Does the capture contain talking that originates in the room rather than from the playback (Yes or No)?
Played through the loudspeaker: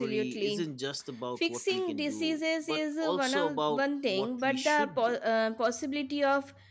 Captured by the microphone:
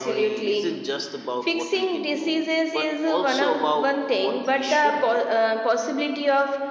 No